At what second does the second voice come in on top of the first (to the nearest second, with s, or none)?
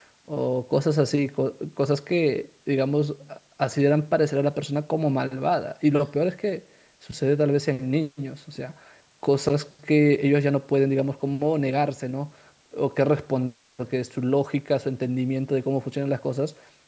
none